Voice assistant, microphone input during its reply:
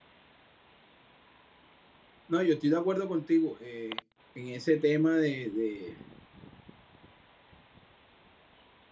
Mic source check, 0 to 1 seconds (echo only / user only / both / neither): neither